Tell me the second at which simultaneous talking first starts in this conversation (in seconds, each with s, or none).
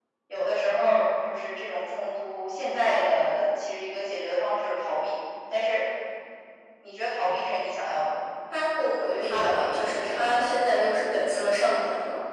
9.1 s